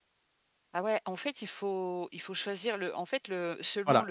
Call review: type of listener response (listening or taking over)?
listening